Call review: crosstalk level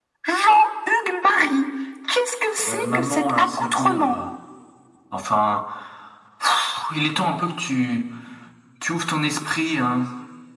present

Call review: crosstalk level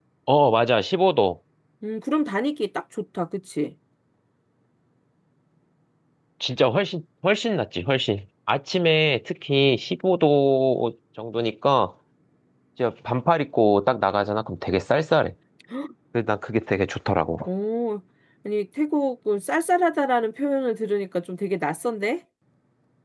none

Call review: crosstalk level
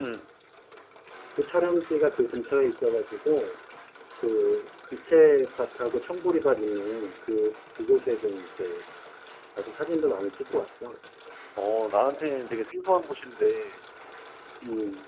none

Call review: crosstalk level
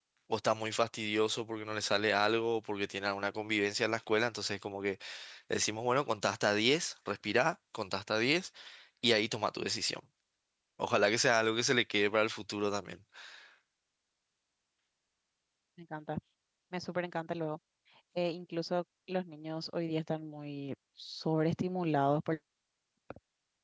none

